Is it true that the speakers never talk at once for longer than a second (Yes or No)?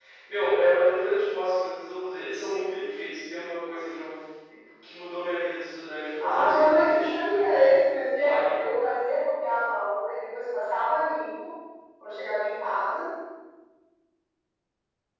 No